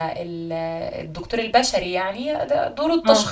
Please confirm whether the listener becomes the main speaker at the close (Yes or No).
No